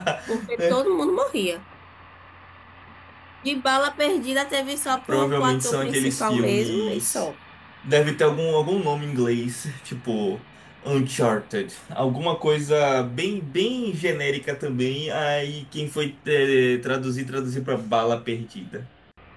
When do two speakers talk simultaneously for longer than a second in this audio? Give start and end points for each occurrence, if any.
5.1-7.2

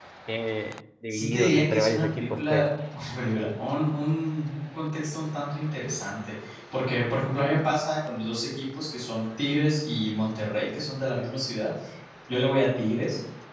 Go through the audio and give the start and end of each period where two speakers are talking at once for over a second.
1.1-2.7

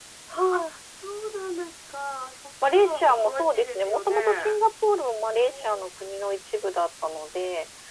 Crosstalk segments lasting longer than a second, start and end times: 2.6-4.6

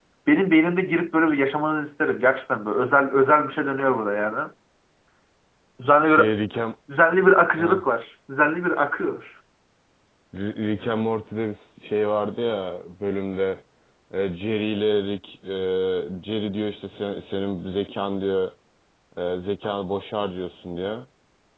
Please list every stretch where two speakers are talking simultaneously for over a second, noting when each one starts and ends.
none

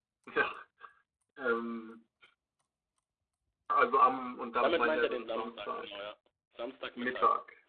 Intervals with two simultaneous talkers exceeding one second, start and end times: 4.6-5.9

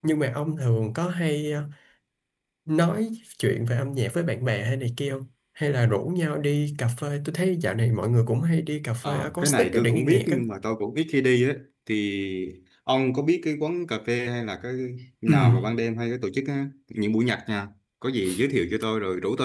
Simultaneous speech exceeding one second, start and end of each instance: 9.0-10.4

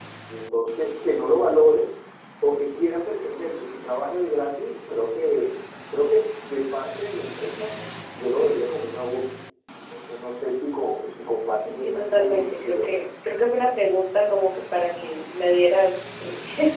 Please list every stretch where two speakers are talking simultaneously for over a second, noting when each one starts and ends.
11.6-12.9

